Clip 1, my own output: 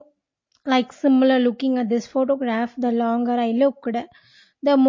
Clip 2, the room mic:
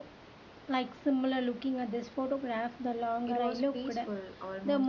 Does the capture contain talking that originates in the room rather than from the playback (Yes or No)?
Yes